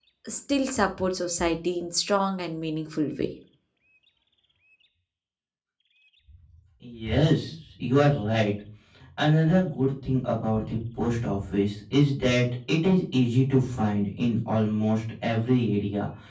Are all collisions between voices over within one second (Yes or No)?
Yes